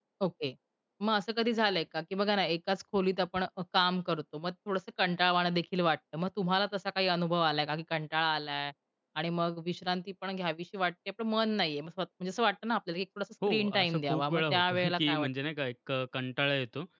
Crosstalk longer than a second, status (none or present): present